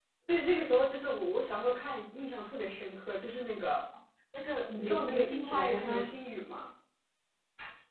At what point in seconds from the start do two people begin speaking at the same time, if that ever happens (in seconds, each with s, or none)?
4.7 s